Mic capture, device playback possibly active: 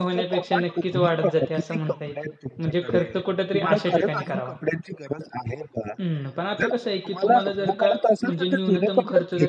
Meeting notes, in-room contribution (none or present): present